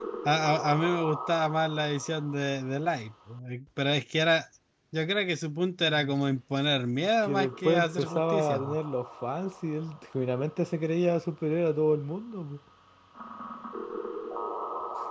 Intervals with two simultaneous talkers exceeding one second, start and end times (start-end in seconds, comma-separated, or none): 7.2-8.8